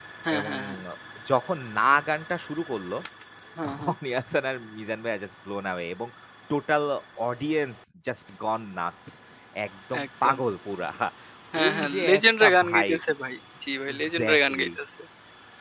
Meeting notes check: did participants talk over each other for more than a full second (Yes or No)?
Yes